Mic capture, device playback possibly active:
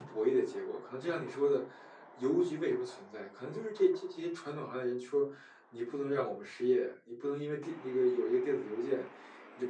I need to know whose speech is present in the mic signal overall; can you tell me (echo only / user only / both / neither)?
user only